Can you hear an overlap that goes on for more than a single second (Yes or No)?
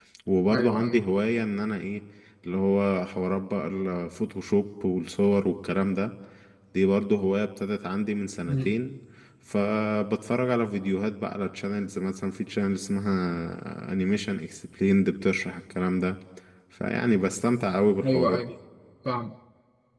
No